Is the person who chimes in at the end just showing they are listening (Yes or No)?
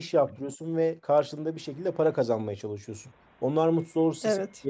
Yes